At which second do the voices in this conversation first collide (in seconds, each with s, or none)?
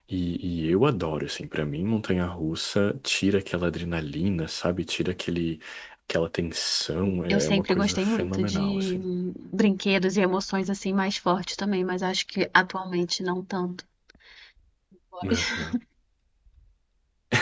7.3 s